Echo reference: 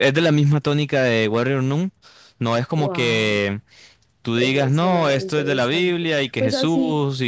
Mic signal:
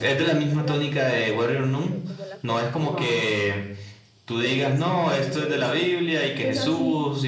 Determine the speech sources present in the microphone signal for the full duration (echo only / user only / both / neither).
both